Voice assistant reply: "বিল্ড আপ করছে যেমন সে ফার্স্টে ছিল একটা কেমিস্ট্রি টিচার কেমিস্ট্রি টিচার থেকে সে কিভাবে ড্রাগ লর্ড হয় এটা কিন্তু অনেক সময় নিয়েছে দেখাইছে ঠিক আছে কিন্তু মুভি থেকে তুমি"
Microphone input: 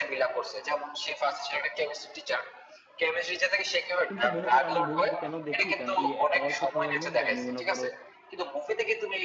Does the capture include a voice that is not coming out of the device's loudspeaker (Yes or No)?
Yes